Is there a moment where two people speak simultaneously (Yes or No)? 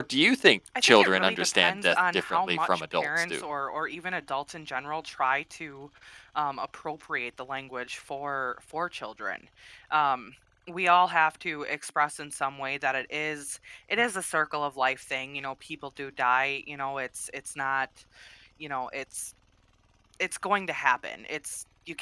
Yes